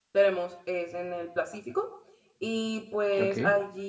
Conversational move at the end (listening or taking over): listening